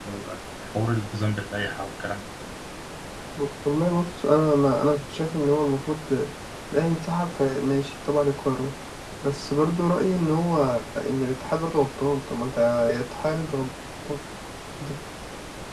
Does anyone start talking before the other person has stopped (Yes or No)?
No